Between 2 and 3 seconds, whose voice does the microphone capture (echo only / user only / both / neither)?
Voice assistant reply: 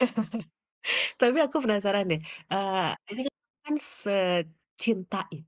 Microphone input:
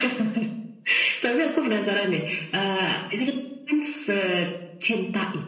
echo only